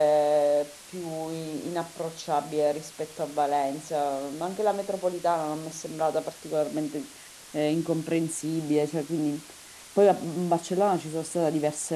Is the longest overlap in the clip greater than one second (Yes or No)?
No